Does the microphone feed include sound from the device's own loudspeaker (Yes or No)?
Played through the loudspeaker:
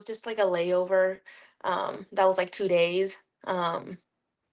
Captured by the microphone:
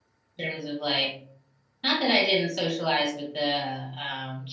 No